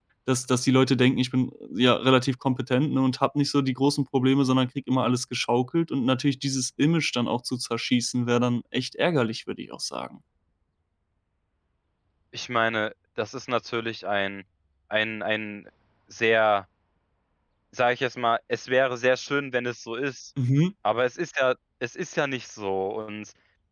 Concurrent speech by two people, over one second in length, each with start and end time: none

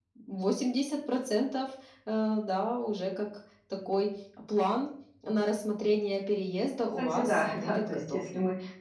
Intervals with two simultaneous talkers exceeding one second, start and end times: 7.0-8.2

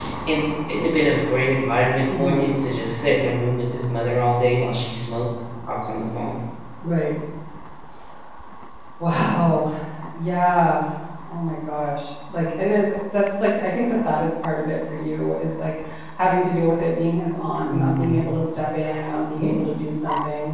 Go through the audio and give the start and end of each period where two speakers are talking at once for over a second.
none

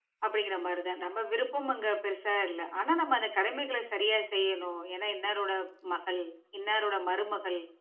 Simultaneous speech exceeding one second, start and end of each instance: none

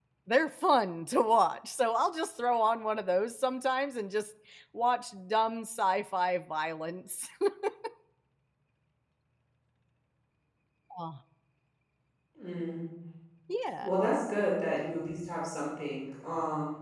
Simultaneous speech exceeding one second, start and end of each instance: none

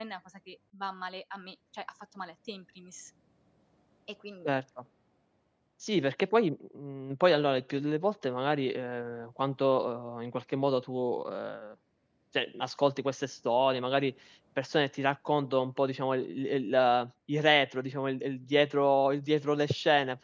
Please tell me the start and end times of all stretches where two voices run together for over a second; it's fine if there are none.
none

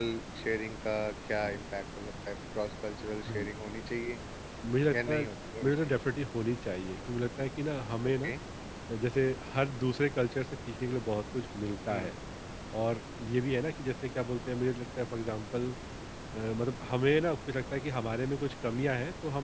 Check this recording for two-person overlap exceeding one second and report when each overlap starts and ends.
none

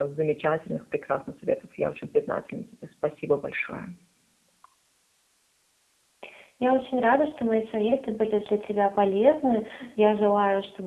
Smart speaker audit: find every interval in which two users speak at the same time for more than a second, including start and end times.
none

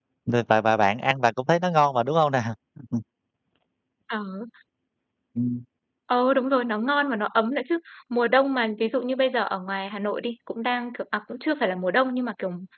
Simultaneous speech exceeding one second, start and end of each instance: none

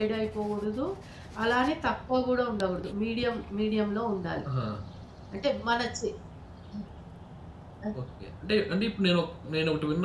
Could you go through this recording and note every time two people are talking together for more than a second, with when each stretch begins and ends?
none

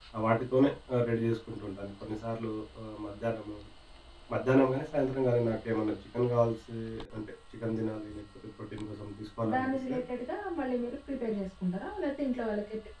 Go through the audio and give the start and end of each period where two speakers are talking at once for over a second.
none

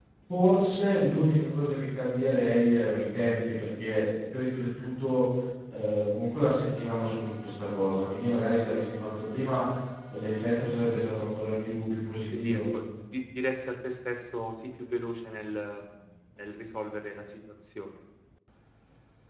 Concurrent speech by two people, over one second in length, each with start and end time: none

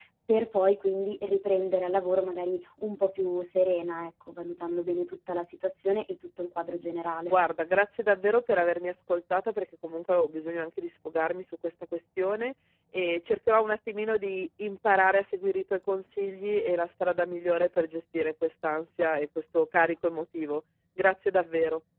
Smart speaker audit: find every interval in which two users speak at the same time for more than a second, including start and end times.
none

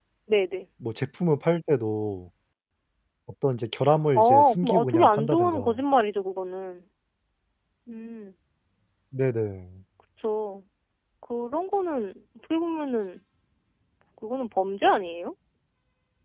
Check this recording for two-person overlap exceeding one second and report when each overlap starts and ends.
4.2-5.8

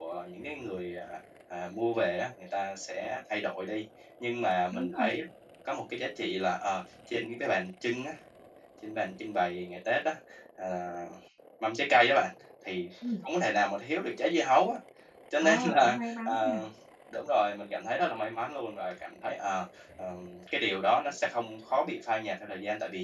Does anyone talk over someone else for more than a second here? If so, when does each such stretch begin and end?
15.4-16.6

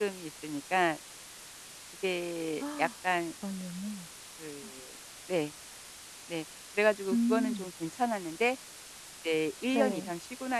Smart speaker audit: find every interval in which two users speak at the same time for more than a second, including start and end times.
none

